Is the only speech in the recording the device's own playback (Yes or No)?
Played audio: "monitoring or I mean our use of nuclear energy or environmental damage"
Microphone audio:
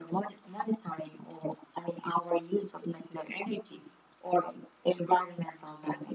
Yes